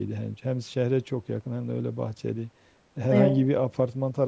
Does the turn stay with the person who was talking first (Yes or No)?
Yes